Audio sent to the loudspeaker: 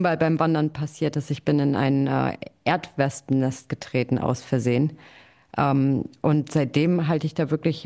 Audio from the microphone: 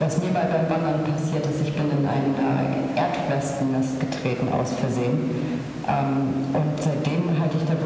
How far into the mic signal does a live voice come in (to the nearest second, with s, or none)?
none